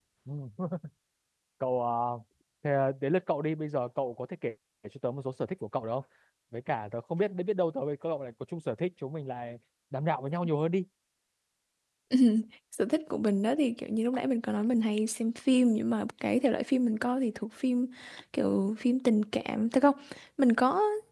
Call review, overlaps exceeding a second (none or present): none